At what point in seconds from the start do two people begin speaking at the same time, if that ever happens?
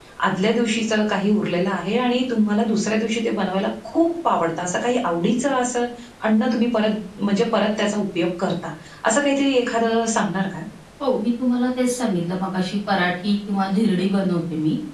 none

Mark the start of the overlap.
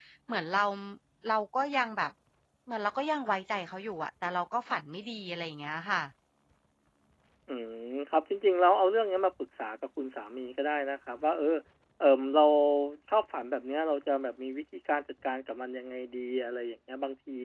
none

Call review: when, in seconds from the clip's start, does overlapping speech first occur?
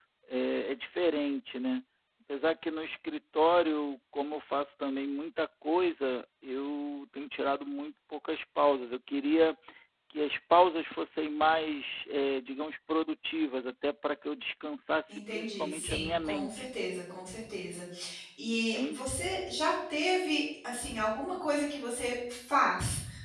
15.1 s

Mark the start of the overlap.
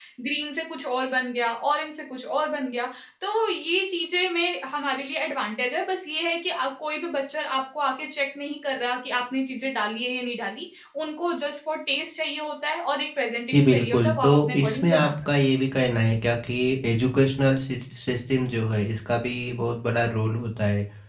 13.5 s

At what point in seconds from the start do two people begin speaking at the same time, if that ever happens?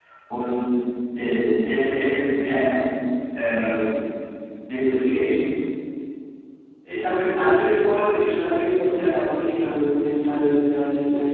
none

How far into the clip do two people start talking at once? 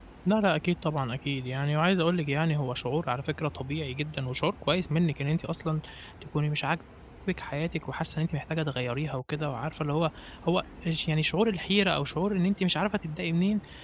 none

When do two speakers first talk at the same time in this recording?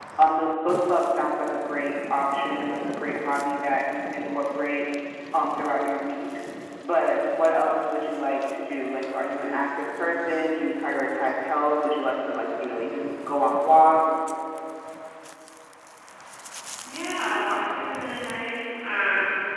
none

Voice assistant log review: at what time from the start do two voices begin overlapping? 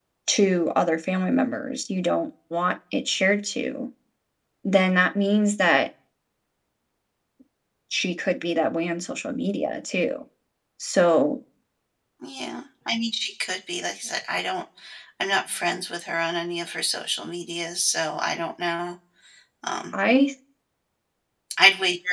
none

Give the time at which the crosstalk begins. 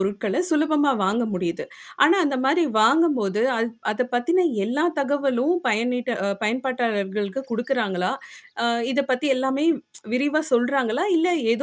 none

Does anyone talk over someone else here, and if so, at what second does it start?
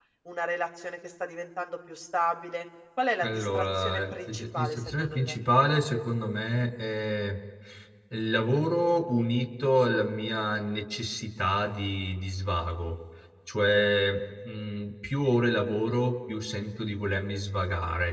3.2 s

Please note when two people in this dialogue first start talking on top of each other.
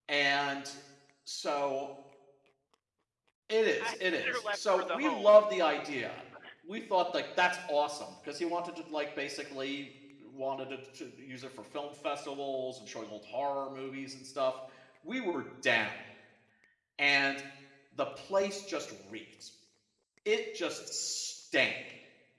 3.8 s

